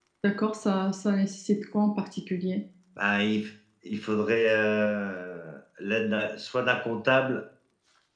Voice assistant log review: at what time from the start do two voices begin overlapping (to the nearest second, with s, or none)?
none